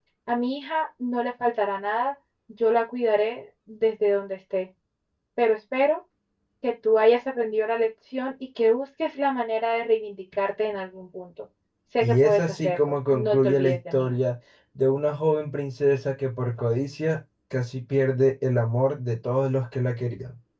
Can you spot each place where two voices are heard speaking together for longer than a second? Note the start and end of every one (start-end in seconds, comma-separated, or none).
12.0-14.1